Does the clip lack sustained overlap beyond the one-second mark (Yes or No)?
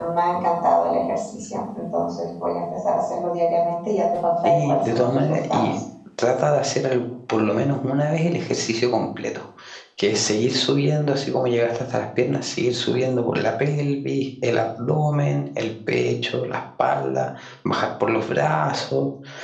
No